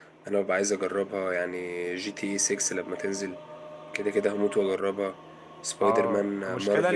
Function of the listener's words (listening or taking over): taking over